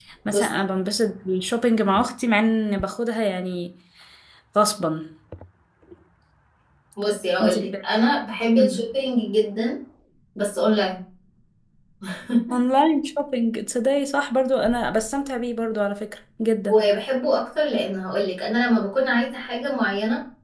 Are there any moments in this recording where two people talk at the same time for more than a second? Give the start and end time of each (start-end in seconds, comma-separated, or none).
none